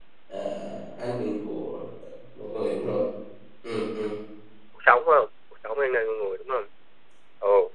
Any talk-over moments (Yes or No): No